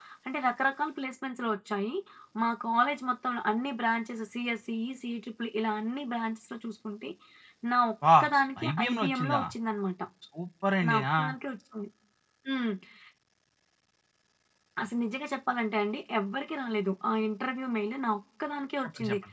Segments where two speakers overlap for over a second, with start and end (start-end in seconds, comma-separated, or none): 8.2-9.4